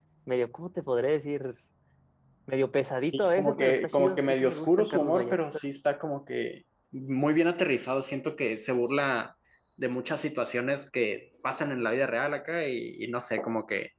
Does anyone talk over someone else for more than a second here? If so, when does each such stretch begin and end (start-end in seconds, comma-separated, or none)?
3.1-5.4